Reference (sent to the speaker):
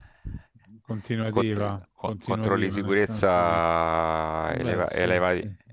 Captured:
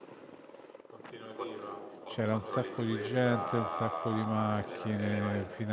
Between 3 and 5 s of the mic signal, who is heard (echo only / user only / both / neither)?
both